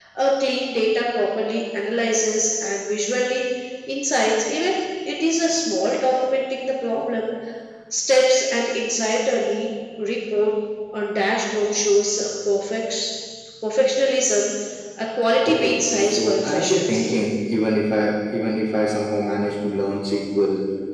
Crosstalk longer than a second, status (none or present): present